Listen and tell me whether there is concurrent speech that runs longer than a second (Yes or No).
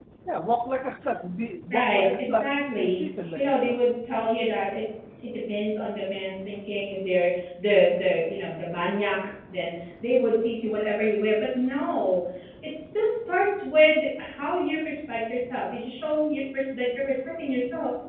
Yes